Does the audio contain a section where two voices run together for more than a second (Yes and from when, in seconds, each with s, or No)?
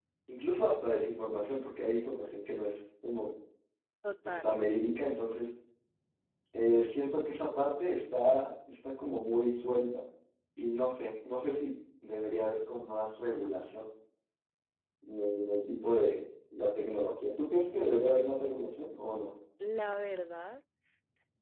No